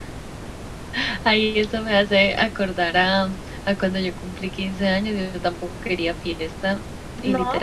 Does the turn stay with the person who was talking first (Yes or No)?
Yes